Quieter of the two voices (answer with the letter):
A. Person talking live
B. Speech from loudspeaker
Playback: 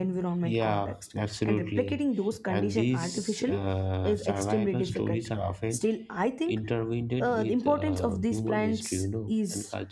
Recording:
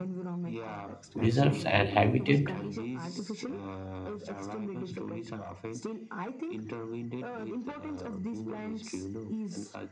B